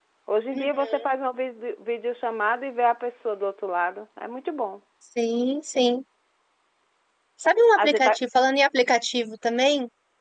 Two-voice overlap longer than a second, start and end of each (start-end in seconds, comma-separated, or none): none